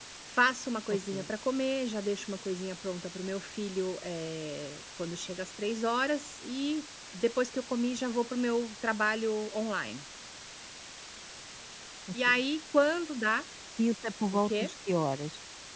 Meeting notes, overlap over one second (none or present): none